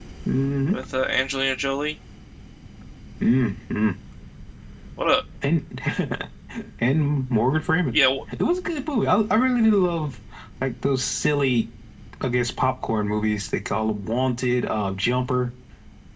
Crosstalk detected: No

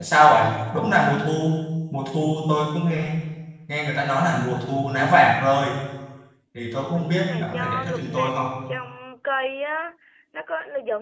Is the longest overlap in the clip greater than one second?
Yes, from 6.9 s

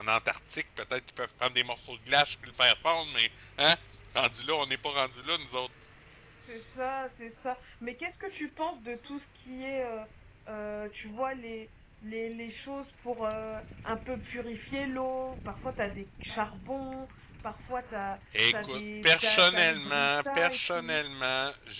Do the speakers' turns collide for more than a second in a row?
Yes, from 18.3 s

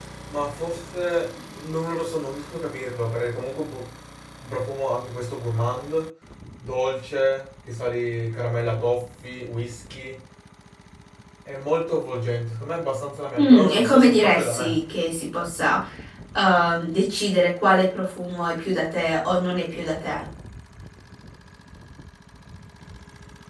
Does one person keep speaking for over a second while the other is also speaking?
Yes, from 13.4 s

